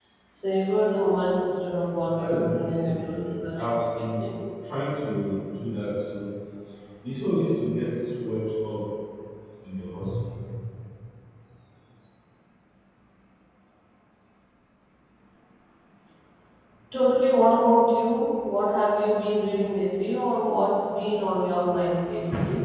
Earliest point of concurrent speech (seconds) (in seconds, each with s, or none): 2.1 s